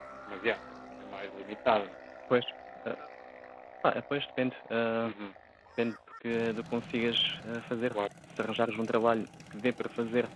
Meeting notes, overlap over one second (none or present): none